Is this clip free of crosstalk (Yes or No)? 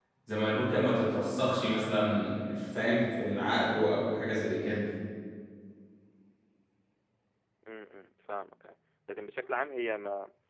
Yes